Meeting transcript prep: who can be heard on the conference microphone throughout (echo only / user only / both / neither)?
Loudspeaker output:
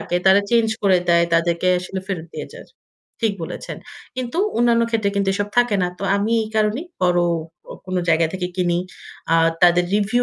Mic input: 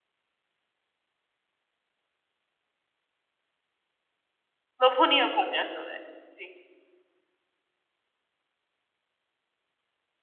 user only